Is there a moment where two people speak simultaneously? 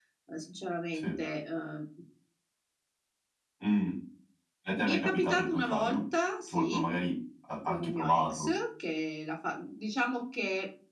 Yes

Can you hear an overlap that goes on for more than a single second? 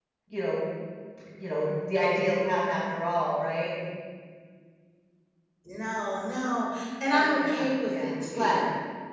Yes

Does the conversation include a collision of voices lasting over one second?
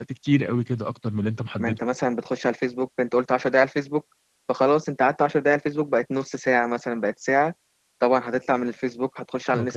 No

